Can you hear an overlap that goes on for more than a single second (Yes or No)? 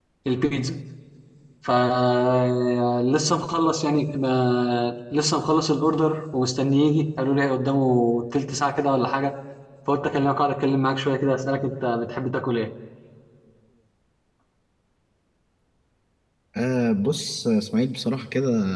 No